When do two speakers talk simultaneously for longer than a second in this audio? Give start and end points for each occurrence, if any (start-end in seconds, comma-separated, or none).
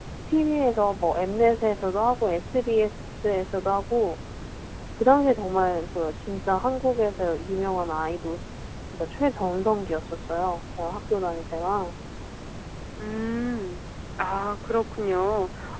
none